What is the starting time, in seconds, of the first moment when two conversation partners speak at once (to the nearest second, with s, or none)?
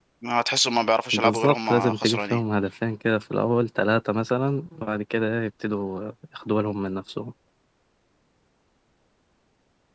1 s